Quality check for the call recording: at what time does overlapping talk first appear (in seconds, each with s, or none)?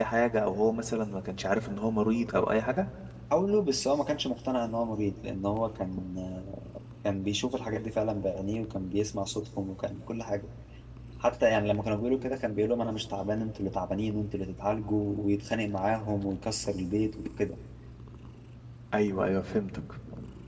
none